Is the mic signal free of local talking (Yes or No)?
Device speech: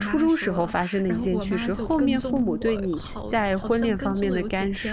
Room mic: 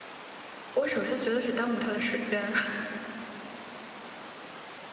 No